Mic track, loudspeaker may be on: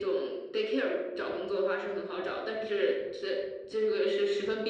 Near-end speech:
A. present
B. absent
B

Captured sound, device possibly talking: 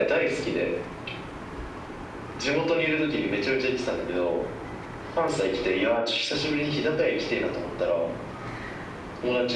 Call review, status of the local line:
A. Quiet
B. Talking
A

